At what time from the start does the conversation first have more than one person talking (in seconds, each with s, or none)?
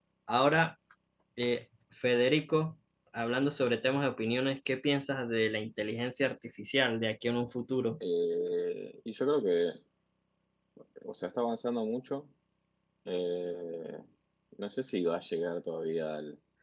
none